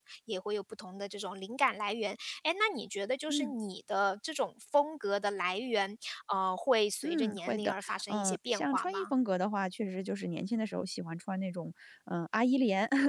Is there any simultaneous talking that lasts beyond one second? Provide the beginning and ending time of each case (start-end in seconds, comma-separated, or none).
7.0-9.1